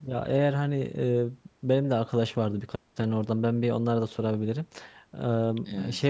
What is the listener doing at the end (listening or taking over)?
listening